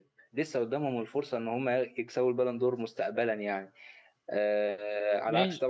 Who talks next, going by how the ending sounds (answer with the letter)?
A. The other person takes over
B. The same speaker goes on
B